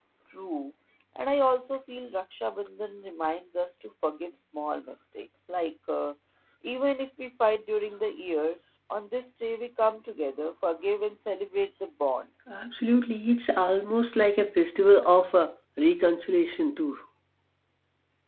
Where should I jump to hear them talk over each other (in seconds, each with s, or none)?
none